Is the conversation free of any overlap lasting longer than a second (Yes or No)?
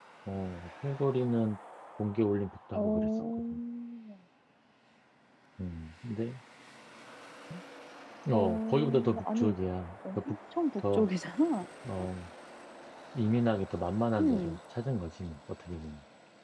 No